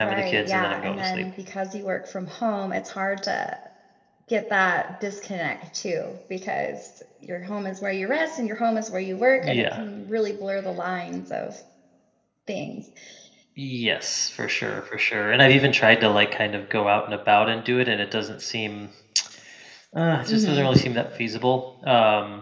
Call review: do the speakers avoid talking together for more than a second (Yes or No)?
No